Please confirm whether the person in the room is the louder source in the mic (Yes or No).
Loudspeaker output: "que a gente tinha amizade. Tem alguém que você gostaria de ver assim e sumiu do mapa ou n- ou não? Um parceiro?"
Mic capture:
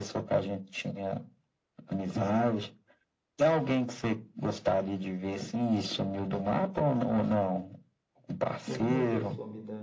No